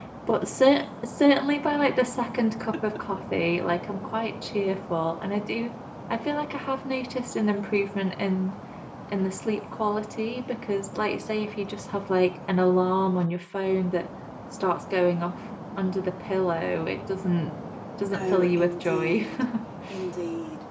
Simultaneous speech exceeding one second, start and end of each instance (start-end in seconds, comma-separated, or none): 18.0-19.2